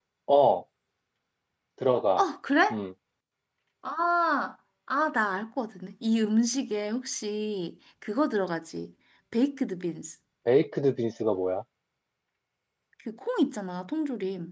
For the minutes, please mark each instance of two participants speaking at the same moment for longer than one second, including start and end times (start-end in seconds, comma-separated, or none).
none